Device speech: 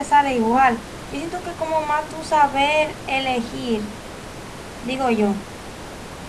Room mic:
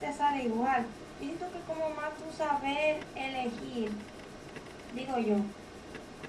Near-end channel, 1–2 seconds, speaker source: echo only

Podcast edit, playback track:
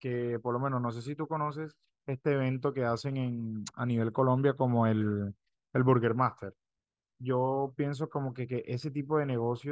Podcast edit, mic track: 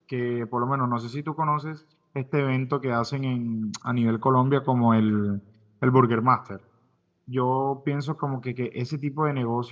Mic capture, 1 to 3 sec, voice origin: echo only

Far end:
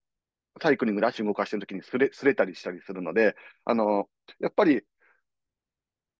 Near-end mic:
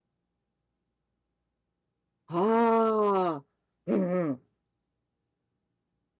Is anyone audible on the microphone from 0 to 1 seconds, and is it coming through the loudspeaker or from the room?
neither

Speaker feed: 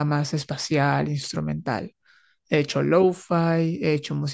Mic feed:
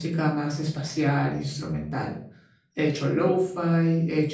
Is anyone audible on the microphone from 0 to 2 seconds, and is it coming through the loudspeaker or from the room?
echo only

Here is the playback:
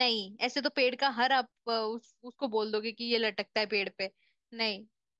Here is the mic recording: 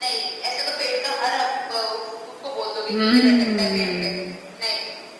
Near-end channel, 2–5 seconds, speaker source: both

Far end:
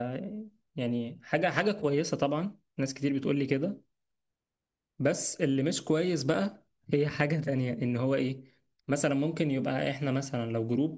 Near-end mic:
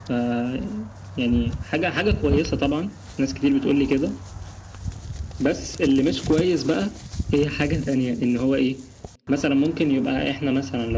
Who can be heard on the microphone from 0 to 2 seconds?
echo only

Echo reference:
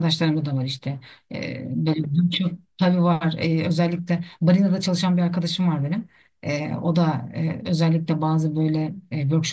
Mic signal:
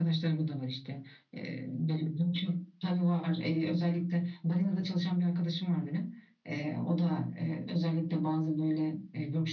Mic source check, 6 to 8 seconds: echo only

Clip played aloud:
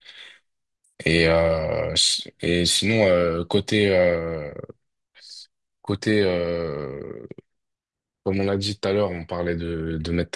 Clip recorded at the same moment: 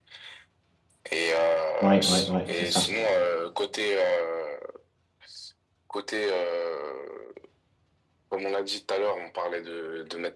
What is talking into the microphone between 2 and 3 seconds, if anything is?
both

